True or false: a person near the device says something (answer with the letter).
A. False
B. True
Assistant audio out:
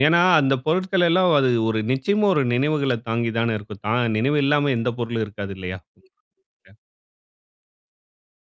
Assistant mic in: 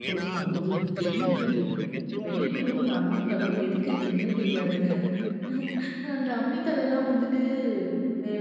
B